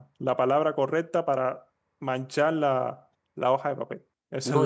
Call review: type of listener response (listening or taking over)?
taking over